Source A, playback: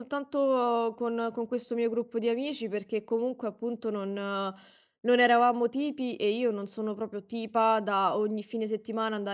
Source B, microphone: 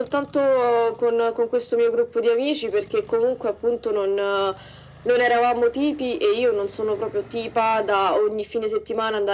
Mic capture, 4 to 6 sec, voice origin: echo only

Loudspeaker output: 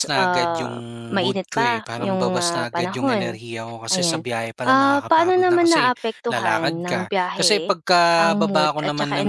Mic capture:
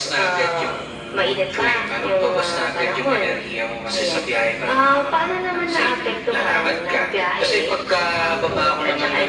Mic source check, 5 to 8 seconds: echo only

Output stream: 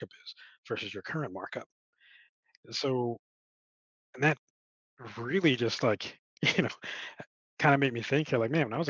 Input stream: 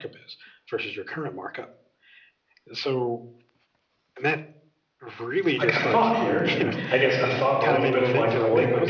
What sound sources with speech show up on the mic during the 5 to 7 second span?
both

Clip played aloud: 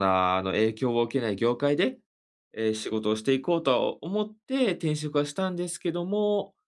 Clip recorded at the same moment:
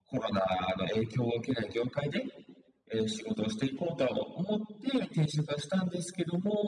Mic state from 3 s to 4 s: echo only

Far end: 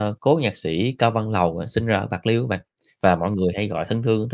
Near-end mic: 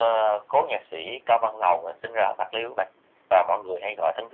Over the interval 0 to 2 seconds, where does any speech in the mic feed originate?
echo only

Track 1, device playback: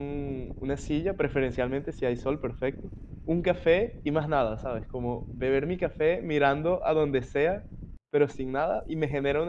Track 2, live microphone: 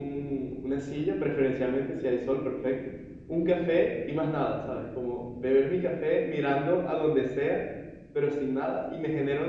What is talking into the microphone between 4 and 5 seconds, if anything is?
echo only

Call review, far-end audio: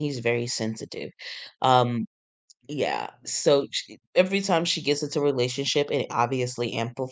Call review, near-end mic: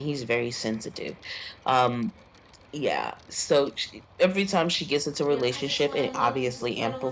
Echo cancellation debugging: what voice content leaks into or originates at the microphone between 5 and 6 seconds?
both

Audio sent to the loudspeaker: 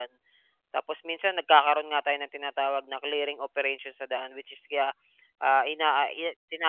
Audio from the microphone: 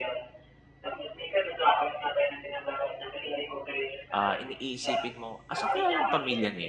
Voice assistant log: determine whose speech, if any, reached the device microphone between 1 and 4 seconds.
echo only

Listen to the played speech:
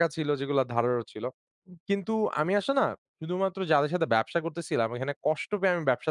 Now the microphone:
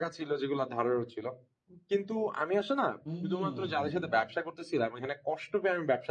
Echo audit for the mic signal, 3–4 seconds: both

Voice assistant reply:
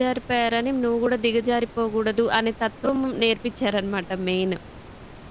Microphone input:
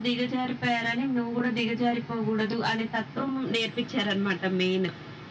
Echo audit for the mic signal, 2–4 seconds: echo only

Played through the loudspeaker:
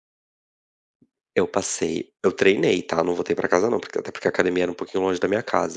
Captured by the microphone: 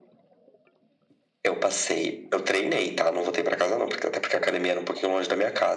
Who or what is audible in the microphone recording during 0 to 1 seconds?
neither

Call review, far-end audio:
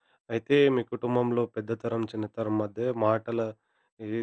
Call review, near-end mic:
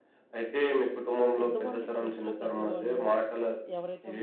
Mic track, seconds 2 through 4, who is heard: both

